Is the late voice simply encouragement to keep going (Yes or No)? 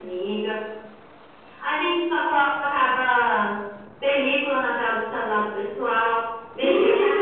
No